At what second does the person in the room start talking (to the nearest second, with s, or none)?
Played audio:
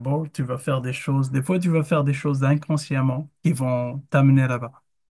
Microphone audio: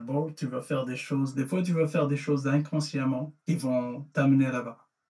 none